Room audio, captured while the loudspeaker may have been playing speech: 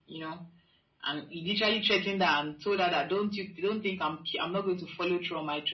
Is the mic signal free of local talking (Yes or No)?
Yes